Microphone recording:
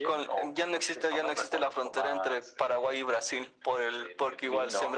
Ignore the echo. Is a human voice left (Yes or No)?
No